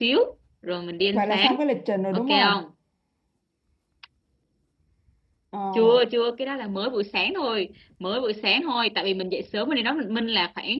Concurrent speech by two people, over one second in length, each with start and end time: none

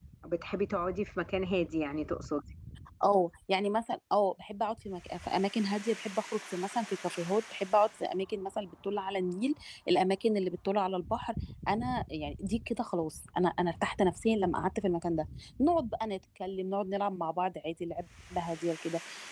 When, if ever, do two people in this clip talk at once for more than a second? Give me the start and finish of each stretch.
none

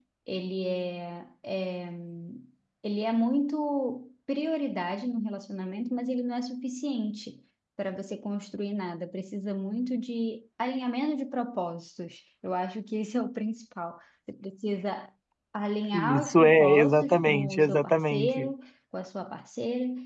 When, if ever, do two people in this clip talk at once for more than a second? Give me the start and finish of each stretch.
15.9-18.5

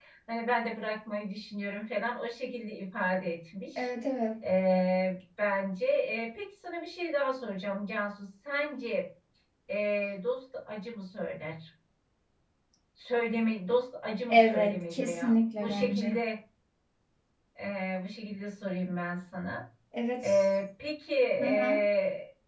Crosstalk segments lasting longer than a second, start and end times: 14.3-16.2

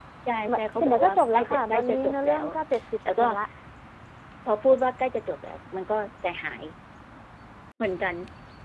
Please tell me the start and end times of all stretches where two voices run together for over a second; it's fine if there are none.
0.5-2.5

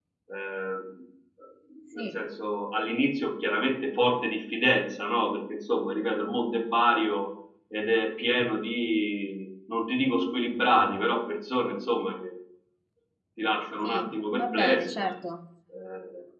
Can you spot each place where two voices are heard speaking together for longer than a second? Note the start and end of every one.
13.8-15.1

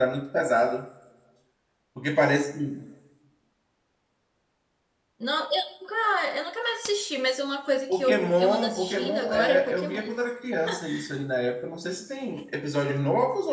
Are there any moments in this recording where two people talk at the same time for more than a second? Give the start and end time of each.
7.9-10.1

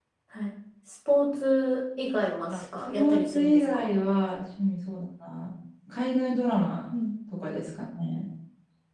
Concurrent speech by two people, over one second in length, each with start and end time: 2.5-3.9

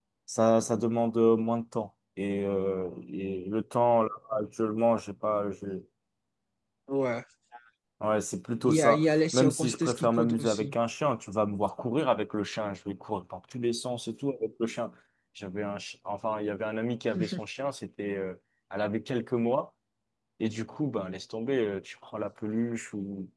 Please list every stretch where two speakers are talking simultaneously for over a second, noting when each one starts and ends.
8.6-10.7

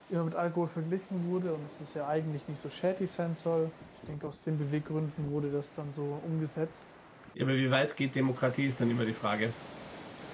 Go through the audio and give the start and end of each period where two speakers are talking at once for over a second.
none

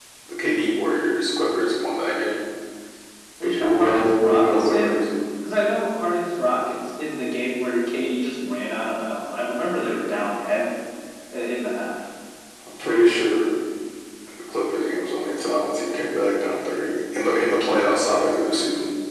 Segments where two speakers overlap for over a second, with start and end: 3.4-5.0

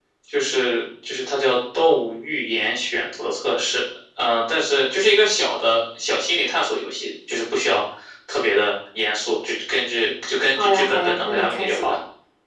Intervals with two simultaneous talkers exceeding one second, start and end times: 10.5-12.0

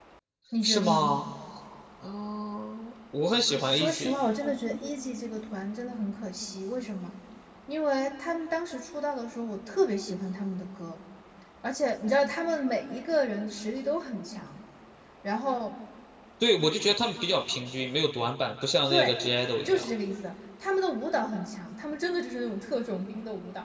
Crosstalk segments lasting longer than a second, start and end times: none

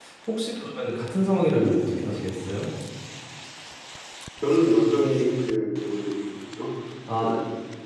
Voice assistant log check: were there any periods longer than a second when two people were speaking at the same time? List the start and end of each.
none

